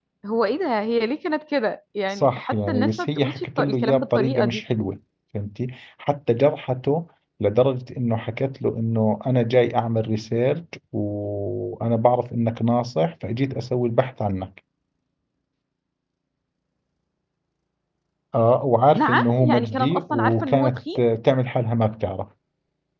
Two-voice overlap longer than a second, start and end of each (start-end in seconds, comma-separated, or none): 2.1-4.6, 18.9-20.8